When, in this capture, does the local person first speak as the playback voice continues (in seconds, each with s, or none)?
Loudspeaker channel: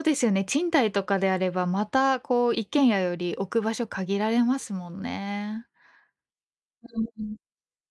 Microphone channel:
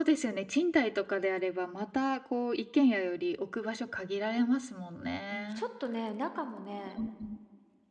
5.3 s